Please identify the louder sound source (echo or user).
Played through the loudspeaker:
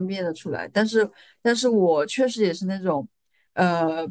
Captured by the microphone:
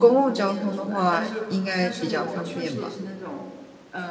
user